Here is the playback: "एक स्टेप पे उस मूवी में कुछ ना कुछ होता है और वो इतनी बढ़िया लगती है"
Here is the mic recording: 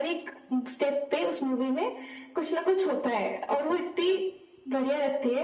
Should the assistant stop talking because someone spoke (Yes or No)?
Yes